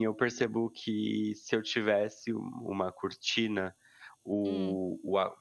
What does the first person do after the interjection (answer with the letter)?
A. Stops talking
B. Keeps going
B